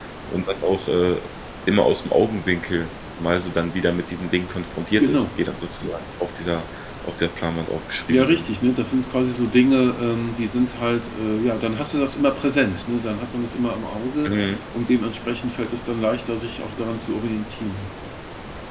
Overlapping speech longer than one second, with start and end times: none

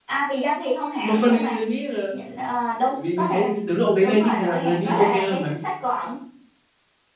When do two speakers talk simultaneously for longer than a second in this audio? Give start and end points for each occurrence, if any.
4.0-5.5

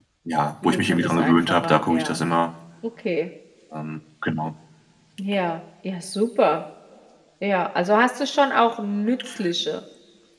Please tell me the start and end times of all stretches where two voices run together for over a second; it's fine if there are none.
0.6-2.2

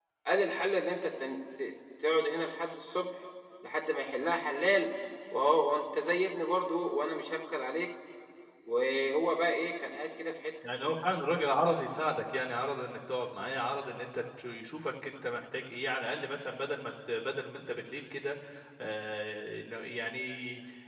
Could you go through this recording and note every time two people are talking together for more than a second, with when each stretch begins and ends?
none

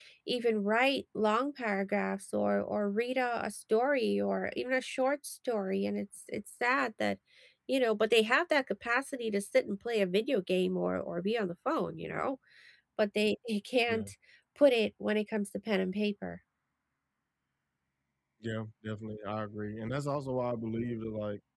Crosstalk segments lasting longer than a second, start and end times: none

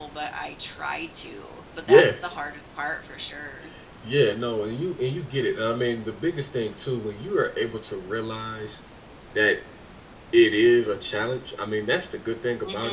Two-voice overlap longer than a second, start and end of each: none

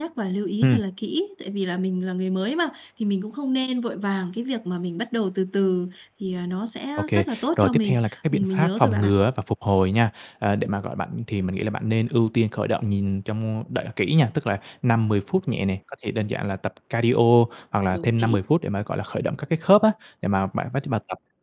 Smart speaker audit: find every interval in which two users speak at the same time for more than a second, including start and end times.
7.0-9.1

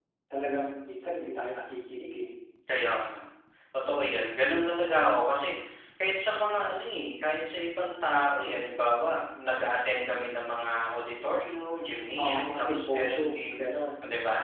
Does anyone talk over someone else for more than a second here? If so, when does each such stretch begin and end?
12.2-13.6

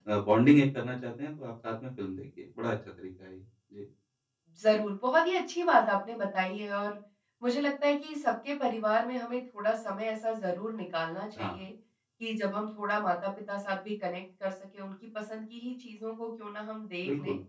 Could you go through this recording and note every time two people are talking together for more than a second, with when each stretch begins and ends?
none

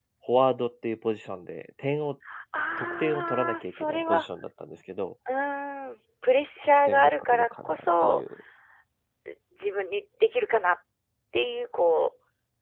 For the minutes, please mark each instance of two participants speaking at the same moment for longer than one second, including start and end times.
2.8-4.2, 6.6-8.2

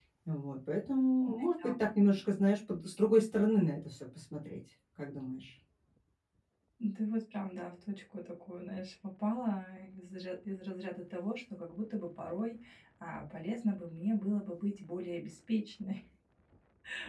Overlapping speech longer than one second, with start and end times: none

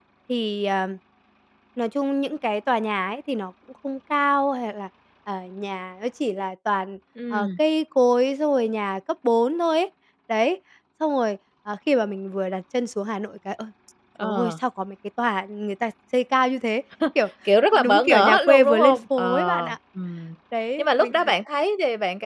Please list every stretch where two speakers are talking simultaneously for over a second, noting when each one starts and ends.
17.7-19.8

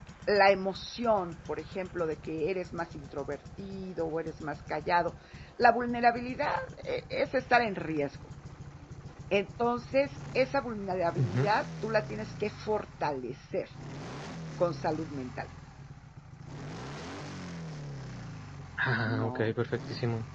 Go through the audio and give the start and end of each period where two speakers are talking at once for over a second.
none

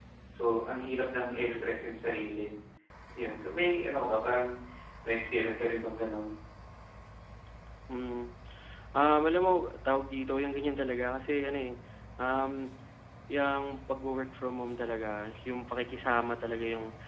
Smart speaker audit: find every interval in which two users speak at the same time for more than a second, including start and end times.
none

